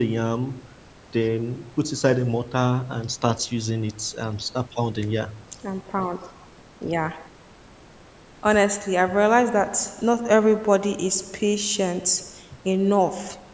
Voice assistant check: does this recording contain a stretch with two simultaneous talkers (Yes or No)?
No